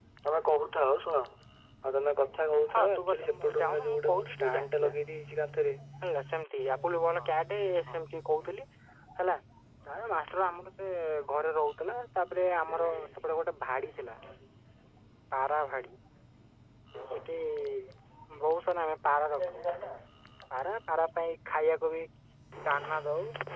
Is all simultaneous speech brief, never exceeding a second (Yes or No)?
No